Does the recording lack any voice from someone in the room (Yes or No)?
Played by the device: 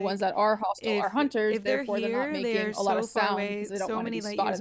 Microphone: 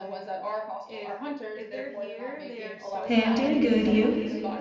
No